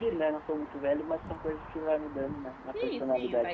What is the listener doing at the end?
taking over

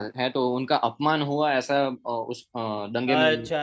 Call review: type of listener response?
taking over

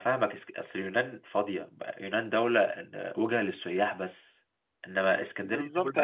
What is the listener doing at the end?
taking over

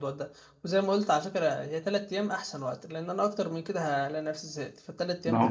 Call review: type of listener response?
taking over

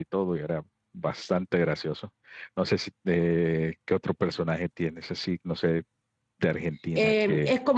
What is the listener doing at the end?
taking over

